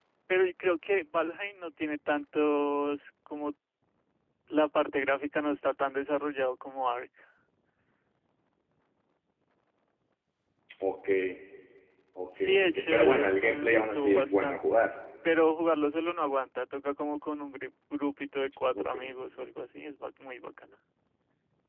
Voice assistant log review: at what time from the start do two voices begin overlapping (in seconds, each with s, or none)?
12.4 s